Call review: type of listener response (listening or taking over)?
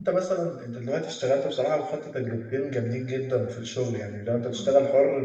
listening